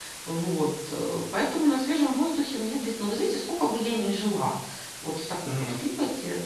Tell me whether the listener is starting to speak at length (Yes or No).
No